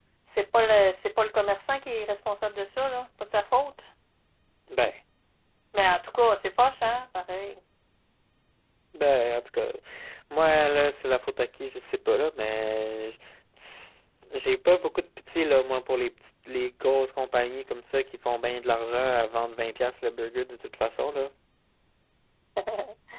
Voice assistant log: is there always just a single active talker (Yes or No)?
Yes